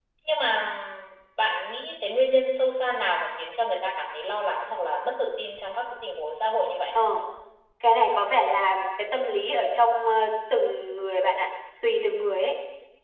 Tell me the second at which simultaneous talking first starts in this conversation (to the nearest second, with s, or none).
none